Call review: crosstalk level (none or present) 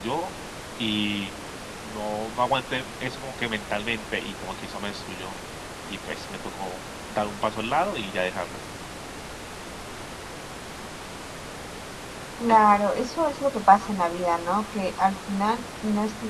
none